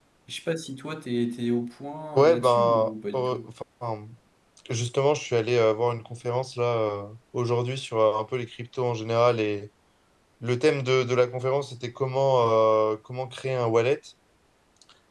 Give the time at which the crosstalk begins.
2.2 s

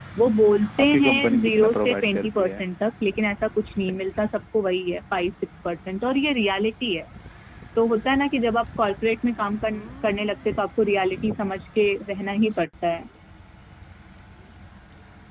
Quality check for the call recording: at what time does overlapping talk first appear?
0.8 s

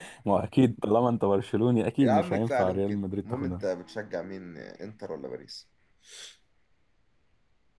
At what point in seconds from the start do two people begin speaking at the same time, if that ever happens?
2.0 s

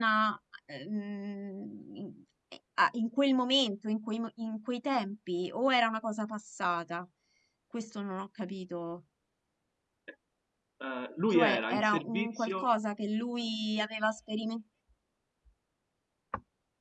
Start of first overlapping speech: 11.3 s

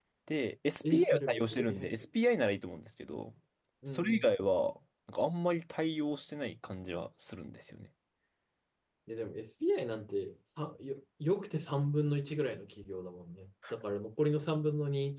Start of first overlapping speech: 0.8 s

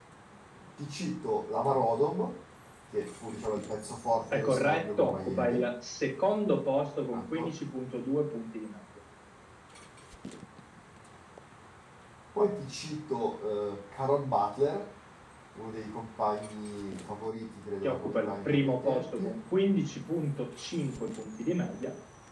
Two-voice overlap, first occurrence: 4.3 s

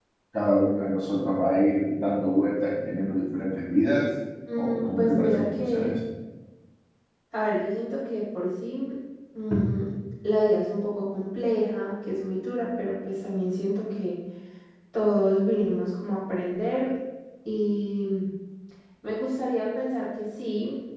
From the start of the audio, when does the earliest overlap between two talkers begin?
4.5 s

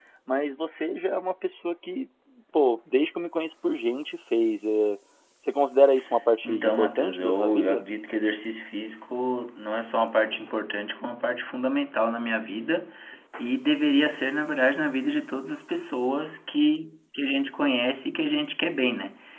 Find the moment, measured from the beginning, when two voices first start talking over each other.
6.4 s

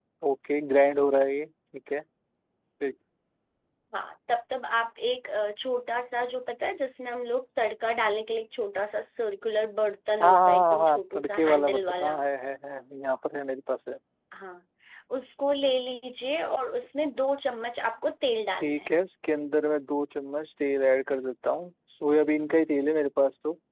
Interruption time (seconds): 10.2 s

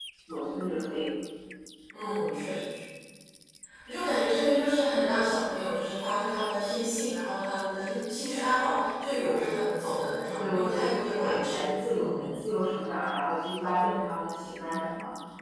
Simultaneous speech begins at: 10.2 s

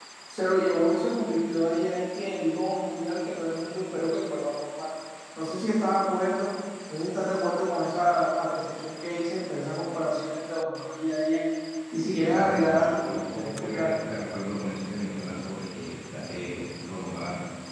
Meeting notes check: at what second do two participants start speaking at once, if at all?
12.1 s

